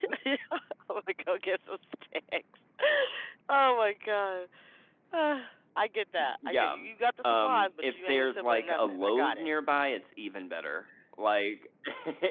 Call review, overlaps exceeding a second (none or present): present